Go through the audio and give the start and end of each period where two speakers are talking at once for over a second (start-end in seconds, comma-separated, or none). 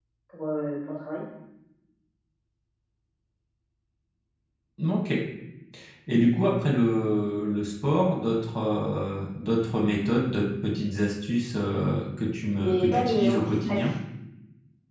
12.6-13.8